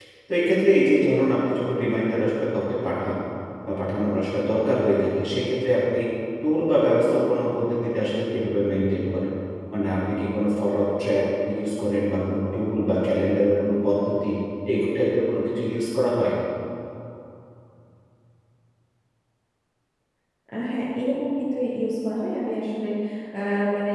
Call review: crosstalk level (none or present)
none